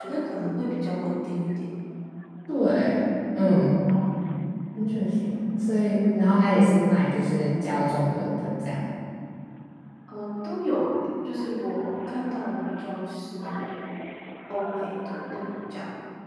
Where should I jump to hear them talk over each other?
none

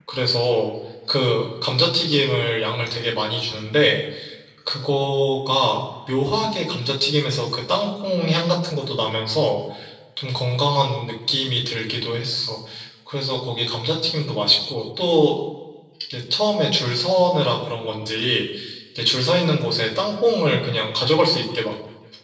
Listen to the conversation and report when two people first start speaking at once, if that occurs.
none

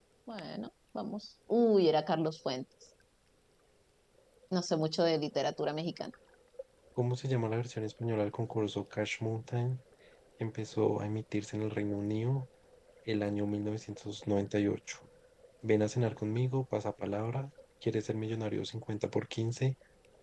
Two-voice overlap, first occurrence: none

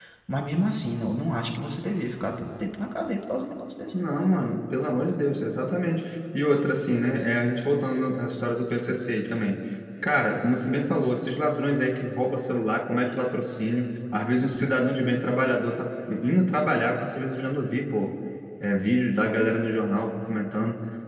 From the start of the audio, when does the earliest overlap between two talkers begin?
none

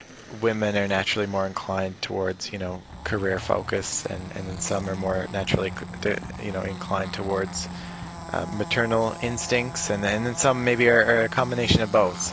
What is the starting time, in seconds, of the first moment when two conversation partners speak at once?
none

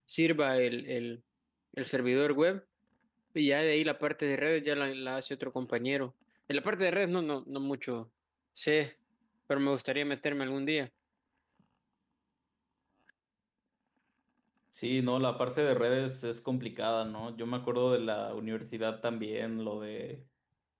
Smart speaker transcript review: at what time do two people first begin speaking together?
none

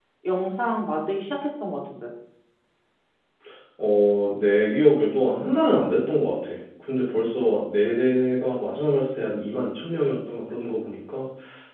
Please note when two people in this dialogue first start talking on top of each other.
none

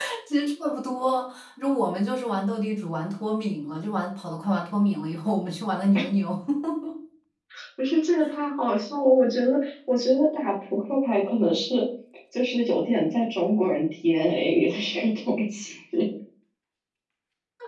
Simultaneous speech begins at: none

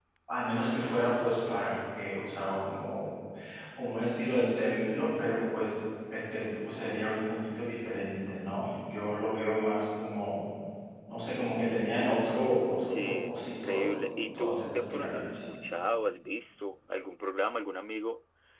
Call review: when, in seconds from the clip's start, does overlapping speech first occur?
12.8 s

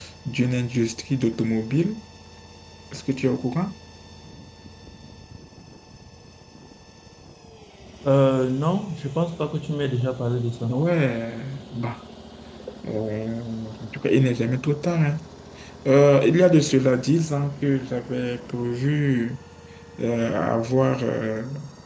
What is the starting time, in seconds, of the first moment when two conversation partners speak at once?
none

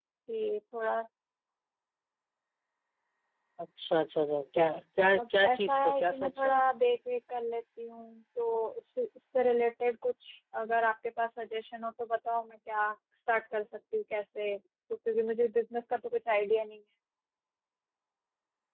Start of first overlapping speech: 5.1 s

